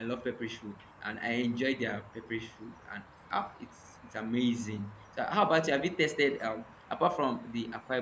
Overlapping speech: No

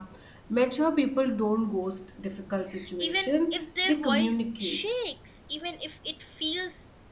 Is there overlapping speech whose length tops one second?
Yes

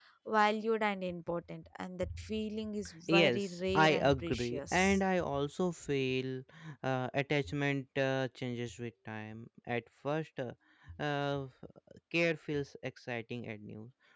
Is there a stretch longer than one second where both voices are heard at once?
Yes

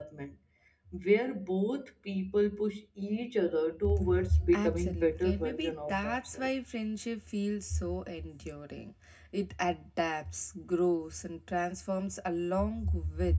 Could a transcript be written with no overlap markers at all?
No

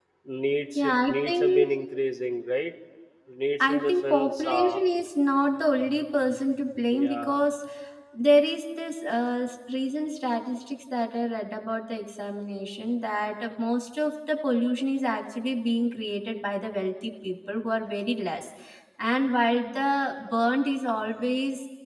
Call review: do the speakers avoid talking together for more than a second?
No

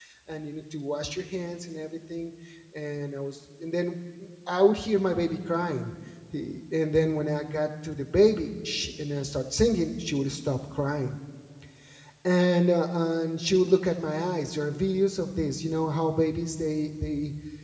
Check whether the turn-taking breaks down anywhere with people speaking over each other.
No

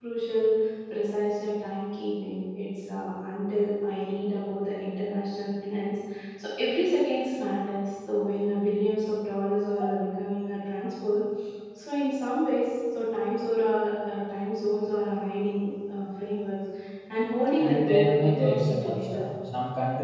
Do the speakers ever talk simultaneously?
Yes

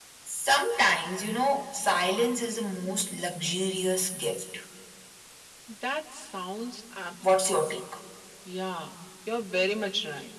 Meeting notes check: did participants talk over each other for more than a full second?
No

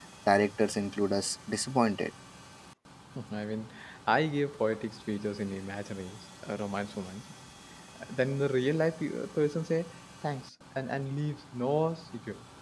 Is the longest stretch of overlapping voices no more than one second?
Yes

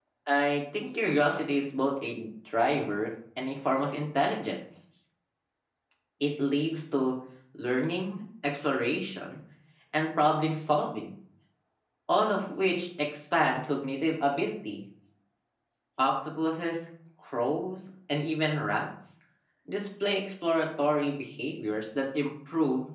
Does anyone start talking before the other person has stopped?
No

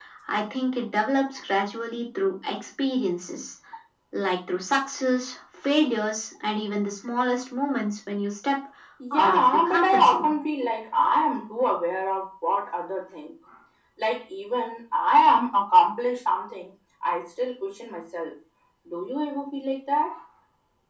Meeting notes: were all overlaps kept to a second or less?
No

